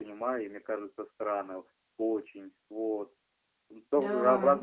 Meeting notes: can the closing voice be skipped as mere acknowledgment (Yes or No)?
Yes